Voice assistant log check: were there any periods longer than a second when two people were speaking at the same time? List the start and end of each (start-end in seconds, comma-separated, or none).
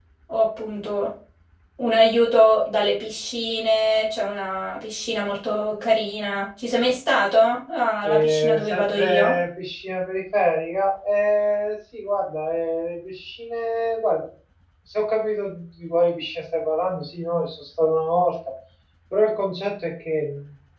8.0-9.3